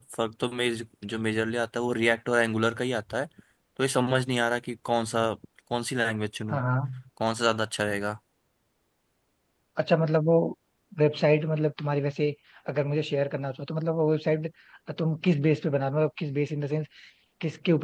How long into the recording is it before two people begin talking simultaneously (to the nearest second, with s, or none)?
none